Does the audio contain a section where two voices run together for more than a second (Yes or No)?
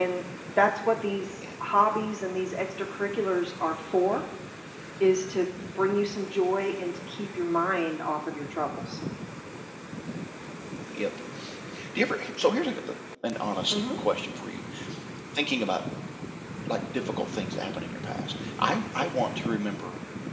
No